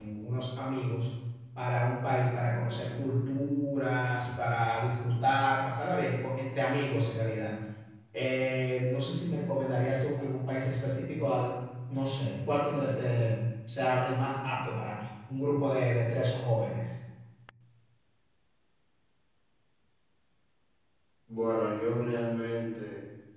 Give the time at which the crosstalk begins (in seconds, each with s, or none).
none